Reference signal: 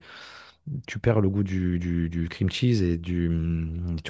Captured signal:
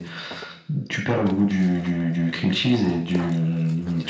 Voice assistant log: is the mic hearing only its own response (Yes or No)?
Yes